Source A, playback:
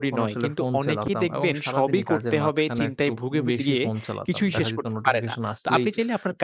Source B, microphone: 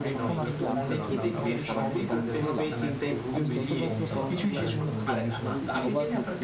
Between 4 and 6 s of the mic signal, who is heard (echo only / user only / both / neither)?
both